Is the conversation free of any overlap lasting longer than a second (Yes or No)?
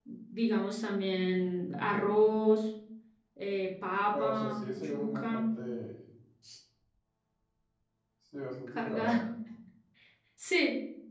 No